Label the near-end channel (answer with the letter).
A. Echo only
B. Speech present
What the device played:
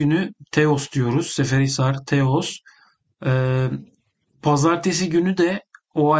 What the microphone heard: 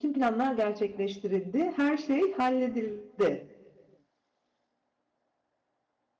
B